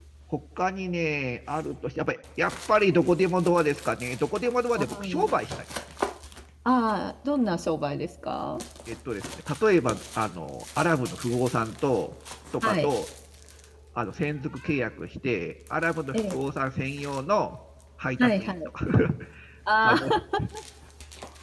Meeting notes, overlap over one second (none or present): none